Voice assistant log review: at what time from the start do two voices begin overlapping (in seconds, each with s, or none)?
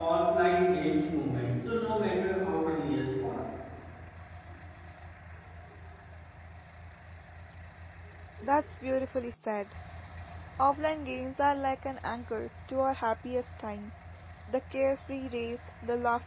none